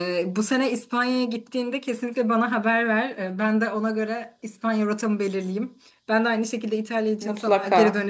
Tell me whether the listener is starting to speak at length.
No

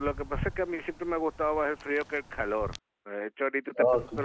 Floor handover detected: No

